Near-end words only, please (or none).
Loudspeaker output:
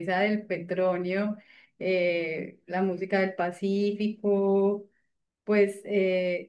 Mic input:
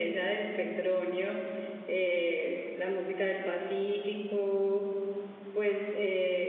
none